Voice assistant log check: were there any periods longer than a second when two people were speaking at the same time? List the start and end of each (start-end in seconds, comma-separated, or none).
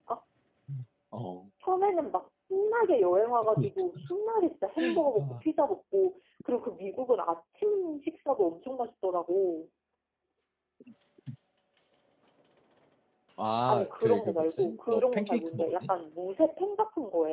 13.7-15.9